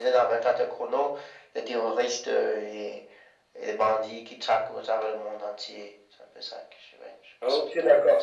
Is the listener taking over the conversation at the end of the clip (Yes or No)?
Yes